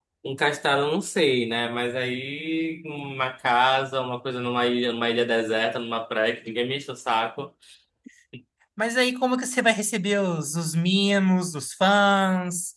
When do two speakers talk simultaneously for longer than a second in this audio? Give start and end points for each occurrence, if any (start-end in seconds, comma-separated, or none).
none